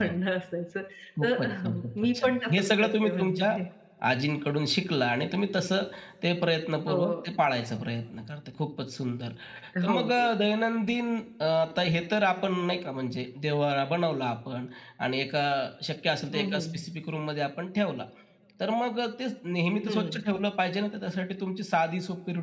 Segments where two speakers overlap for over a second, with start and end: 1.2-3.6

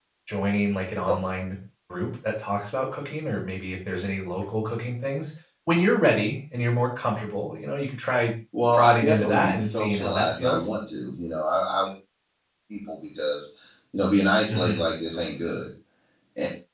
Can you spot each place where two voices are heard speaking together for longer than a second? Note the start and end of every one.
8.7-10.7

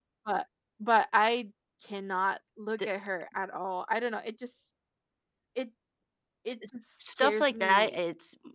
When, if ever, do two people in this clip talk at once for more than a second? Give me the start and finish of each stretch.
6.7-8.0

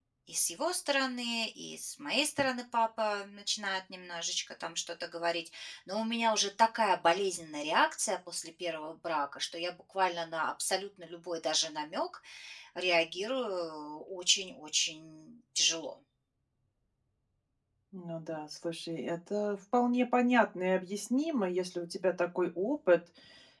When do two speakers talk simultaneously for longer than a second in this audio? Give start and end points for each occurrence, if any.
none

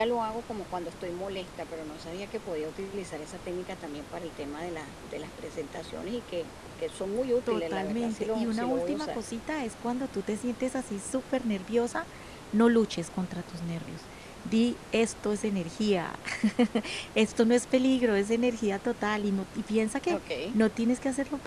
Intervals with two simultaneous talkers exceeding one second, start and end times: 7.5-9.2

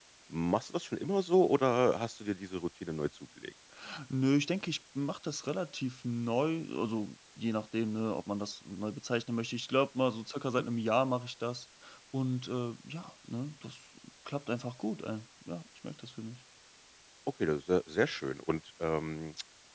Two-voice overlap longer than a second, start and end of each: none

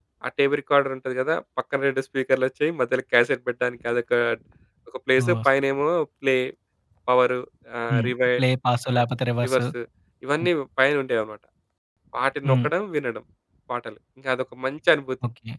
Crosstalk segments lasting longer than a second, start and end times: none

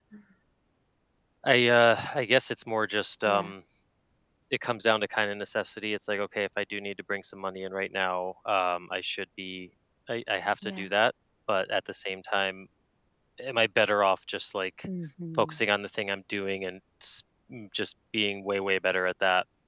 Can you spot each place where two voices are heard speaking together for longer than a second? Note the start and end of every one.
none

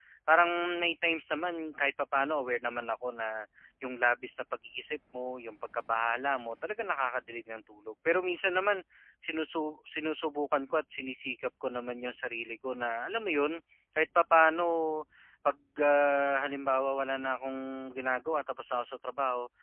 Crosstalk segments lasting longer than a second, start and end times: none

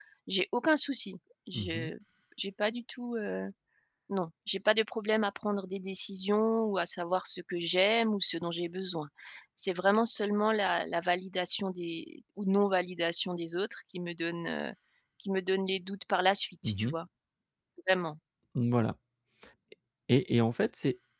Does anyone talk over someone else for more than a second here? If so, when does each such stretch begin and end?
none

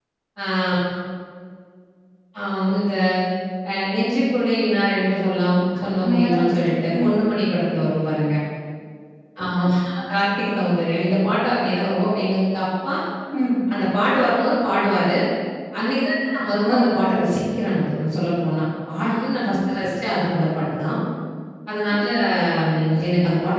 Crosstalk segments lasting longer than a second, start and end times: 5.8-7.2

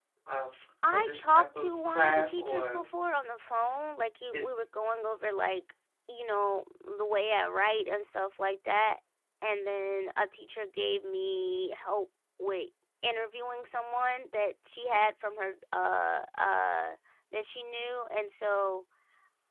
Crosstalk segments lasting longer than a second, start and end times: 0.9-2.8

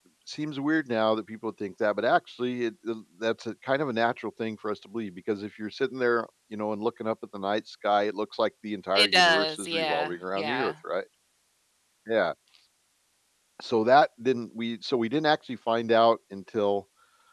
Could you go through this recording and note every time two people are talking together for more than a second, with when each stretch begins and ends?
8.9-10.7

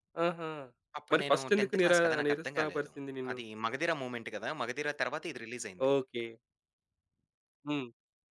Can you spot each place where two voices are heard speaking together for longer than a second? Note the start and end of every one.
1.1-2.9

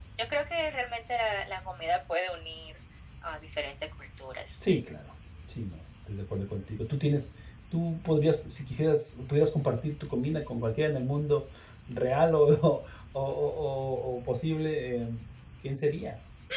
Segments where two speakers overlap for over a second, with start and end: none

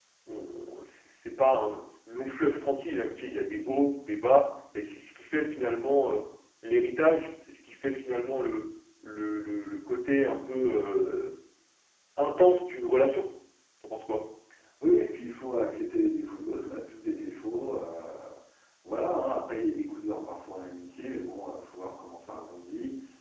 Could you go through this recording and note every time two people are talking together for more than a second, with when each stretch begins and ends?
none

